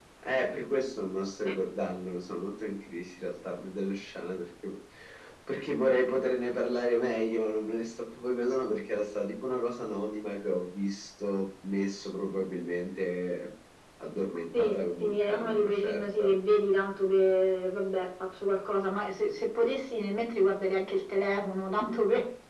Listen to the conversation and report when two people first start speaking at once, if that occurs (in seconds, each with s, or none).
14.5 s